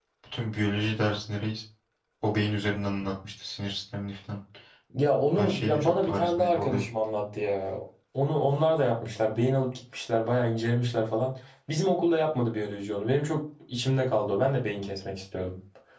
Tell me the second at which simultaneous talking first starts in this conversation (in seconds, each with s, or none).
5.4 s